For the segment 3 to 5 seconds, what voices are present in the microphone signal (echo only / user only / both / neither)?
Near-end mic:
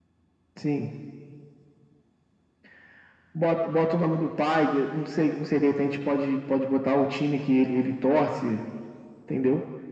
echo only